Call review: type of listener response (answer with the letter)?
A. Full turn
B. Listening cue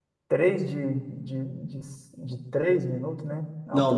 A